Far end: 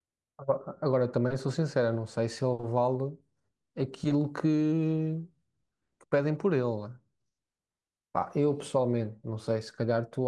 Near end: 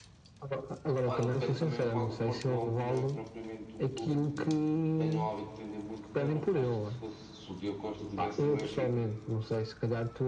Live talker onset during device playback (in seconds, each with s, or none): 1.0 s